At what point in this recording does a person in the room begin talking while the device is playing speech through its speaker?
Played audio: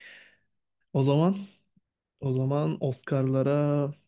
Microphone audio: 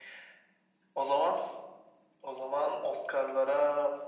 none

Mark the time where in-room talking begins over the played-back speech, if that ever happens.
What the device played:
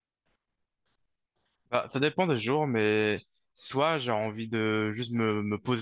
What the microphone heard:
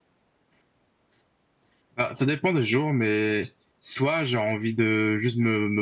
none

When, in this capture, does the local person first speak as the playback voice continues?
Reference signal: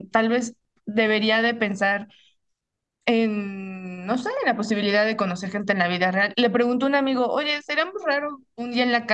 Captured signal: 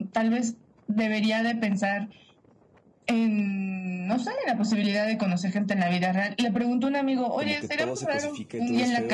7 s

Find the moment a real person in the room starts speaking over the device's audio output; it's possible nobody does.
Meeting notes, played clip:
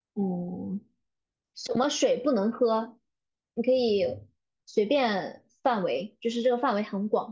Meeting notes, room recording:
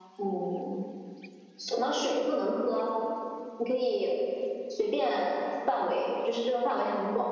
none

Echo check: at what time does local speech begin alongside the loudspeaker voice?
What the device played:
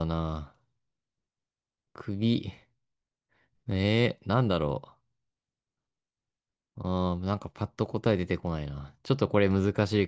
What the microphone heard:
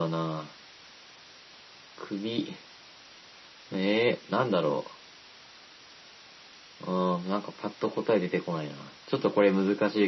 none

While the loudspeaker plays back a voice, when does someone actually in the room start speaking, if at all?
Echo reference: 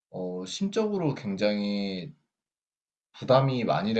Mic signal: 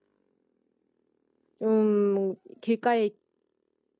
2 s

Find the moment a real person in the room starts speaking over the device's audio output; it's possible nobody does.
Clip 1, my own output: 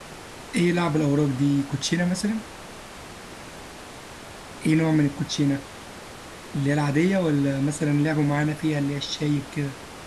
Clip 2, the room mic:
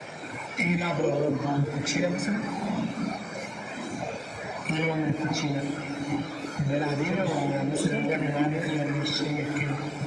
7 s

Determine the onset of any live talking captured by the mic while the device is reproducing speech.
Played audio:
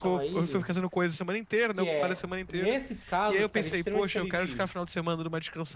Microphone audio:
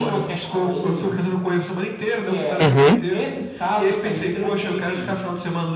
3 s

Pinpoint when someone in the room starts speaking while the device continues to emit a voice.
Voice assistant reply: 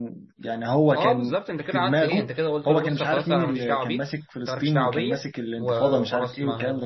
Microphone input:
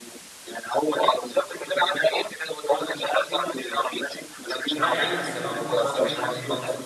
5 s

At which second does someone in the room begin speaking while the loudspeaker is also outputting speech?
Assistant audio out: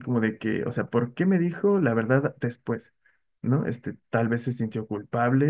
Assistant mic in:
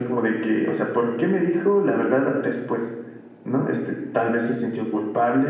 none

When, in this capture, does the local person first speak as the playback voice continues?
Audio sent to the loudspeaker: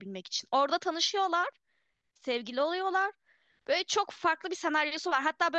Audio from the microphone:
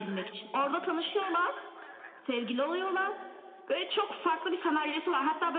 none

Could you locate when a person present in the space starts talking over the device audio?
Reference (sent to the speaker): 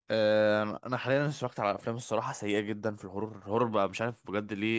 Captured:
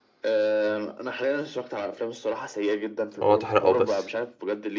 3 s

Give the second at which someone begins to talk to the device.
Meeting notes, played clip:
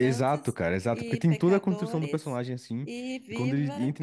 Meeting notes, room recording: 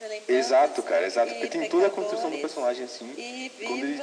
none

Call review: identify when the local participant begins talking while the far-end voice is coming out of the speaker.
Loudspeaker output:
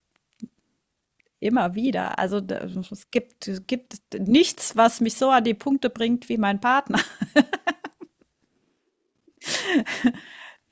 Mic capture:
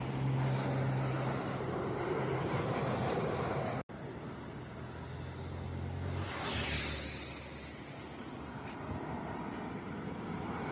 none

